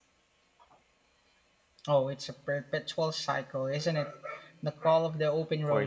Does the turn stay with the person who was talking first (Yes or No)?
No